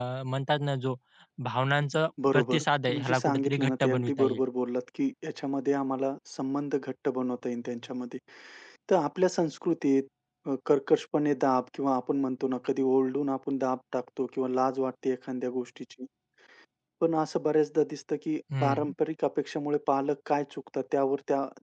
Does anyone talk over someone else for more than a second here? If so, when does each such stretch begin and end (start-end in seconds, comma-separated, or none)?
2.3-4.4